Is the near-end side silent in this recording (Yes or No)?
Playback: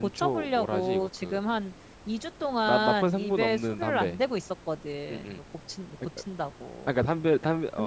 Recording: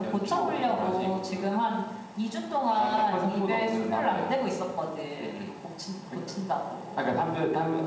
Yes